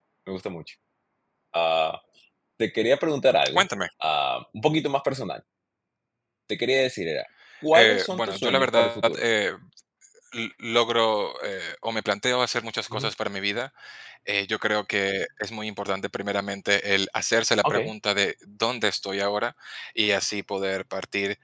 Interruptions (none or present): present